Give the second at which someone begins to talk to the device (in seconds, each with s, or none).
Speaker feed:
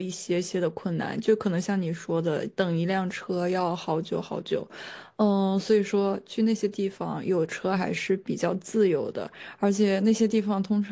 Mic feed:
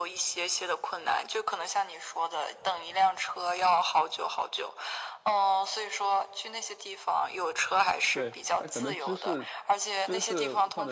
8.1 s